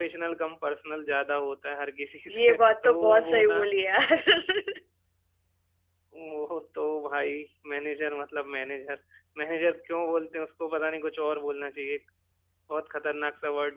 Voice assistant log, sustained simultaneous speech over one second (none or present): present